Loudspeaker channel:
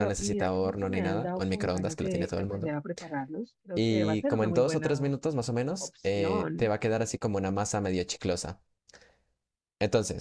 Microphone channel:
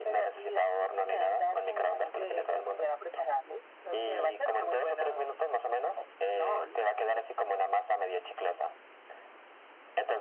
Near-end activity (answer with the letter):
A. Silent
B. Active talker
A